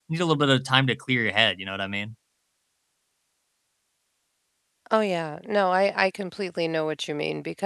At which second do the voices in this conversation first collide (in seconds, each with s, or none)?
none